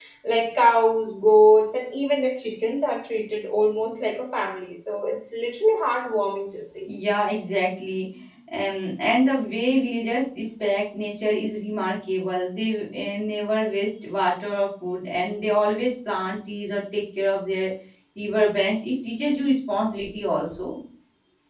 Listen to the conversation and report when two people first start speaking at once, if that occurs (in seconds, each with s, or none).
none